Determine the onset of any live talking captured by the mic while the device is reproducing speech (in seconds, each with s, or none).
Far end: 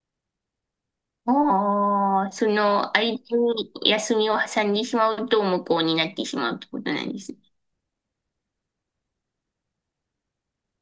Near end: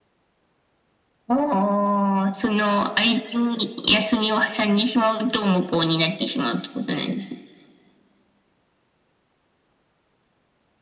none